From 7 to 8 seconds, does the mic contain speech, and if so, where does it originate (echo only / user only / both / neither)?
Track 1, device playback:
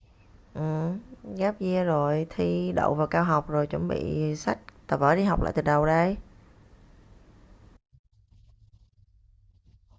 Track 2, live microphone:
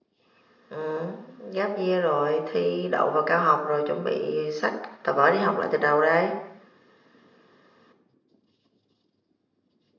neither